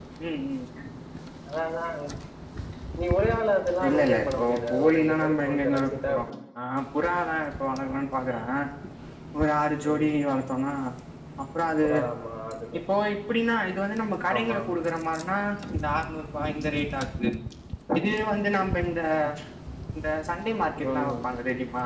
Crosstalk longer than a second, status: present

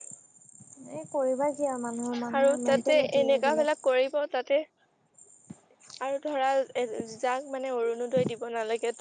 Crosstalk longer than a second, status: present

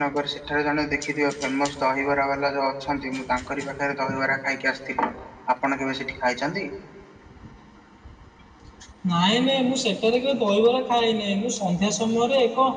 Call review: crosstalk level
none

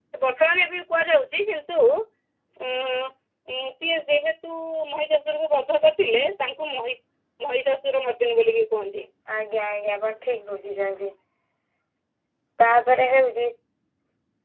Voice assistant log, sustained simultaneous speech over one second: none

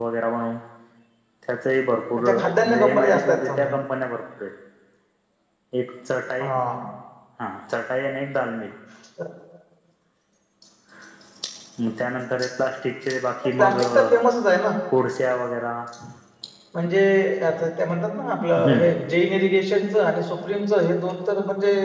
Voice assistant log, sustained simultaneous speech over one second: present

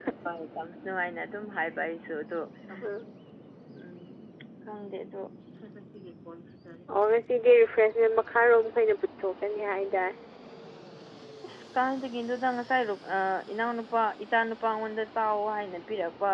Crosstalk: none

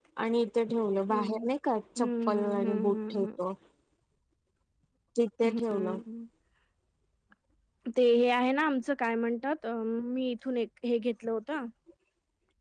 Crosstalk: present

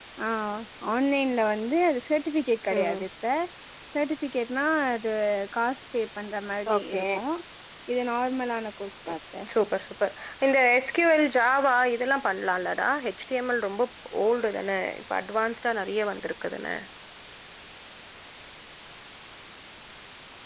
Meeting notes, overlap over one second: none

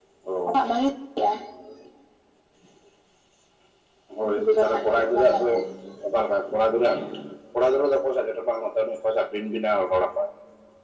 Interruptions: present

